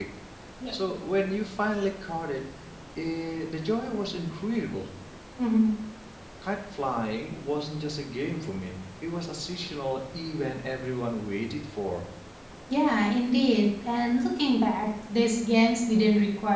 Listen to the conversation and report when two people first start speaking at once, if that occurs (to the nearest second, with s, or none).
none